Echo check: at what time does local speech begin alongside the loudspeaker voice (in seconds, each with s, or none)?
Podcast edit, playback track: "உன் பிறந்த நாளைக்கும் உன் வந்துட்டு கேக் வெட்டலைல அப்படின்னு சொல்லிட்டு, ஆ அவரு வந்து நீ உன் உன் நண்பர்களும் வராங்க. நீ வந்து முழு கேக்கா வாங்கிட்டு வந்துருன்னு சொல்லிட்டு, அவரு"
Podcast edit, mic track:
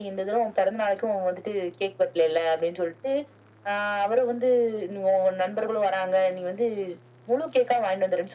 none